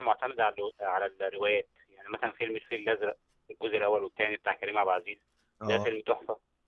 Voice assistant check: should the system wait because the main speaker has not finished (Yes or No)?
Yes